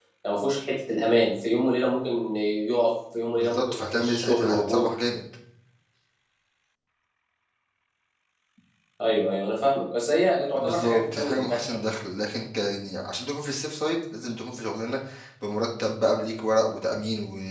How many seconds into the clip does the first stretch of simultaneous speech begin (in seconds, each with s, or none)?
3.4 s